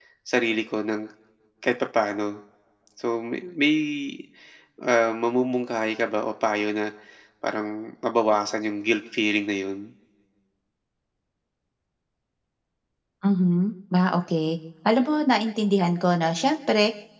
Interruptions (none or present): none